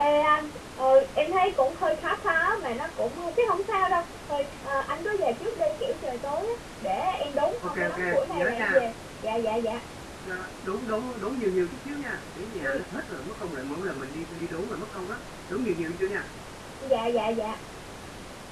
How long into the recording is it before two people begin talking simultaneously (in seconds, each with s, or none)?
7.6 s